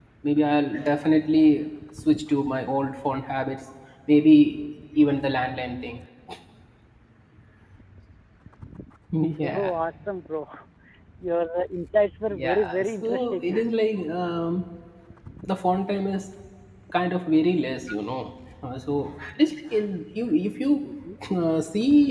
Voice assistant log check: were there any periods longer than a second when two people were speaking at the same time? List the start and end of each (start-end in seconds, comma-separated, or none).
12.3-13.6